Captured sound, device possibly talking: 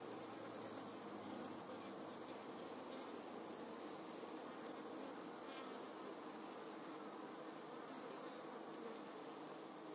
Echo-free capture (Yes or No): Yes